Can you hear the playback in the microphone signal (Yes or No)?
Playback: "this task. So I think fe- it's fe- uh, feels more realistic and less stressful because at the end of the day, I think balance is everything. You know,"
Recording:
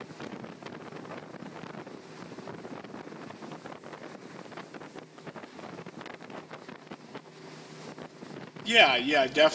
No